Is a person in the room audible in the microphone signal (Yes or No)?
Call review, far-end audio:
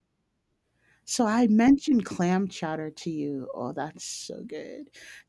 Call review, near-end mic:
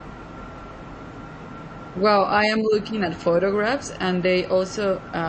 Yes